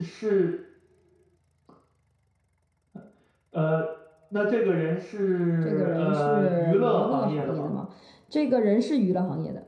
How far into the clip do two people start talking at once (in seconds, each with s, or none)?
5.7 s